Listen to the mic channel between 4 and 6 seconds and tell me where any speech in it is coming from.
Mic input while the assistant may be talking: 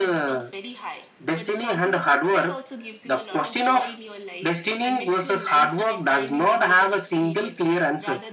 both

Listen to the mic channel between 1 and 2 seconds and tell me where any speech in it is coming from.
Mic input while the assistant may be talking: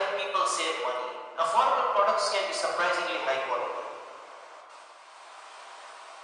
echo only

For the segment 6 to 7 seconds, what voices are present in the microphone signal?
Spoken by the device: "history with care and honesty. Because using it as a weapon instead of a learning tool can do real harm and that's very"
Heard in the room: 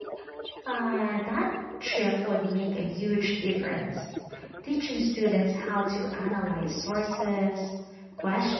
both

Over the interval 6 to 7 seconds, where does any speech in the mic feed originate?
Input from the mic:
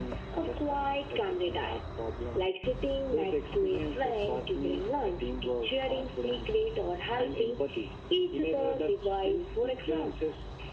echo only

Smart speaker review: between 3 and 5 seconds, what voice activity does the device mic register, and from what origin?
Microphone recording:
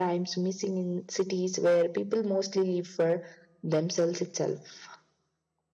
echo only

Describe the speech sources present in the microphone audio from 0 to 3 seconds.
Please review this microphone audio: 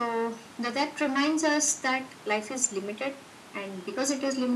echo only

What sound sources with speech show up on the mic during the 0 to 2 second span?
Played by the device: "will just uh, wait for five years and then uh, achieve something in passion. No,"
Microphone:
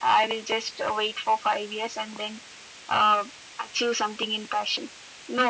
echo only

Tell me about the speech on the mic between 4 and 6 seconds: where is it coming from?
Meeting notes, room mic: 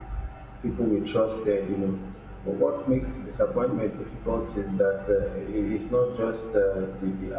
user only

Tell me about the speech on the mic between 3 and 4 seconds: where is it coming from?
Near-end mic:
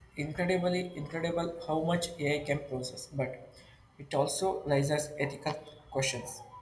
user only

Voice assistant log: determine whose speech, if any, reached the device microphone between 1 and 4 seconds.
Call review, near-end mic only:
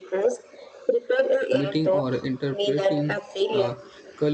both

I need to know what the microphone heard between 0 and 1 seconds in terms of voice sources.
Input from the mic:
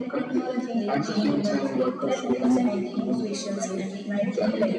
both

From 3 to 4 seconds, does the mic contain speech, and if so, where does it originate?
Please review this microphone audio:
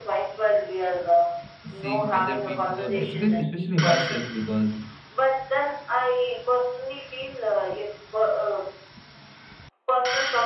both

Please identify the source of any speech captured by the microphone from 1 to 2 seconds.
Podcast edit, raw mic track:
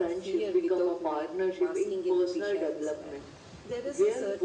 echo only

